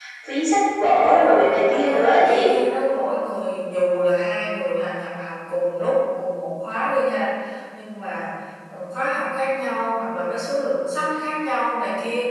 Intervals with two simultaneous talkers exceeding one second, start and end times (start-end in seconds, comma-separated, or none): 1.0-2.5